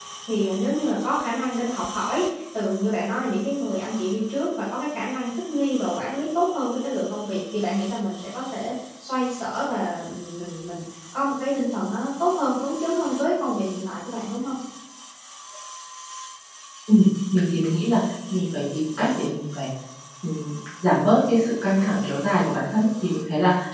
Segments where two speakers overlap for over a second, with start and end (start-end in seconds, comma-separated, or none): none